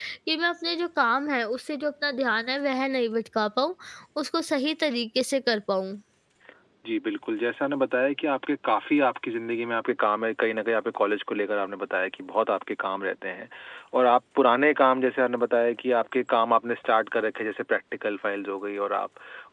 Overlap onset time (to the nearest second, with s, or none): none